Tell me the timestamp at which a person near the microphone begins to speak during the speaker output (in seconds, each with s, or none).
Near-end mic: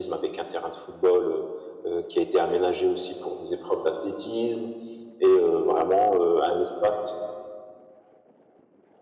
none